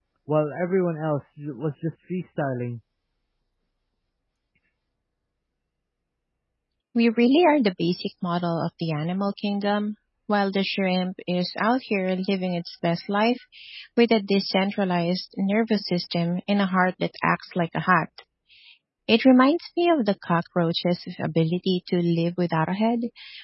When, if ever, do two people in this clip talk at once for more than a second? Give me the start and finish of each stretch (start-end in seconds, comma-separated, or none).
none